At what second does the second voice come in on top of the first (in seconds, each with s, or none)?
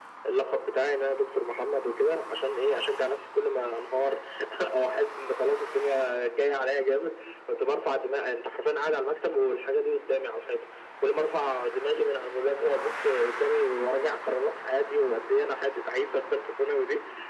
none